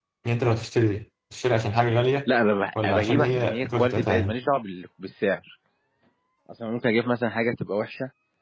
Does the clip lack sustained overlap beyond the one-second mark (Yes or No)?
No